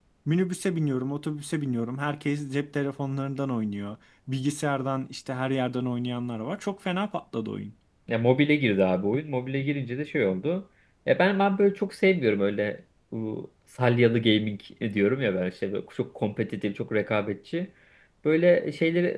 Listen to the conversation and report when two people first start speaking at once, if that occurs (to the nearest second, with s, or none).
none